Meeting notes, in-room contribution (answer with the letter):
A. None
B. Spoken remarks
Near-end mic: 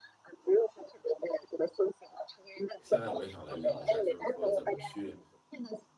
B